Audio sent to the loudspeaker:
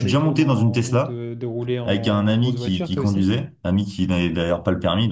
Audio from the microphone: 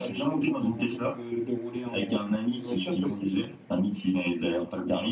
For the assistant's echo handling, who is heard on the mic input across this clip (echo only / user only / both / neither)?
echo only